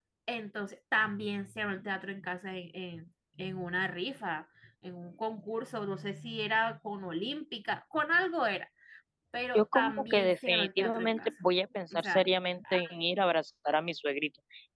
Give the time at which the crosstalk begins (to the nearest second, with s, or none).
10 s